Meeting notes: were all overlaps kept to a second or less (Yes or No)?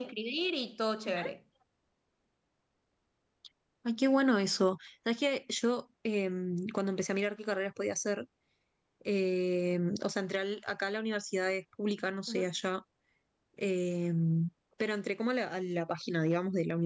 Yes